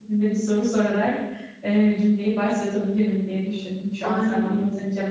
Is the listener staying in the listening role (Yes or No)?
Yes